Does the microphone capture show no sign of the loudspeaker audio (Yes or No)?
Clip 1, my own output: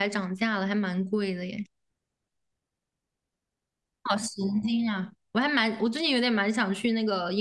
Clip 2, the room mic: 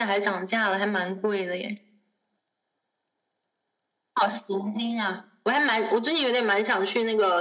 No